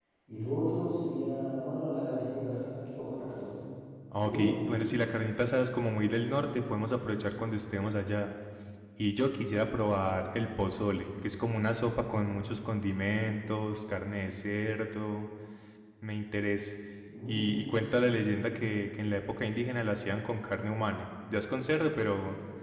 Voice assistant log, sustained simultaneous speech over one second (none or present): none